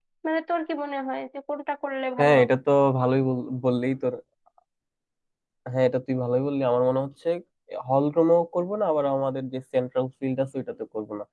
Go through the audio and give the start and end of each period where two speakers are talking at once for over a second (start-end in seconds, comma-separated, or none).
none